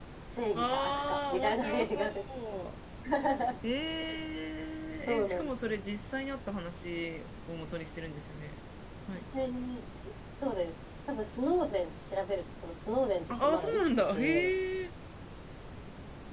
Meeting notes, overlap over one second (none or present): present